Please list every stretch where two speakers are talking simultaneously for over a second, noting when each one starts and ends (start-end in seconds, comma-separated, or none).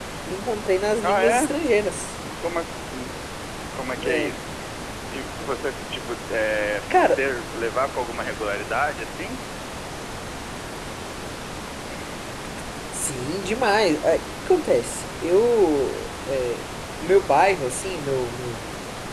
none